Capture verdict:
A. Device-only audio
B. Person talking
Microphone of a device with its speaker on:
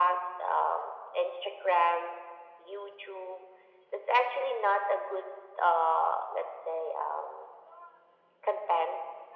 A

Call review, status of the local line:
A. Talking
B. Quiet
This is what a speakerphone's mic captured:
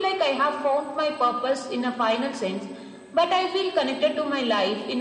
B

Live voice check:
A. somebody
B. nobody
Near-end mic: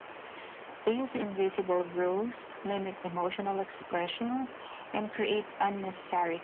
B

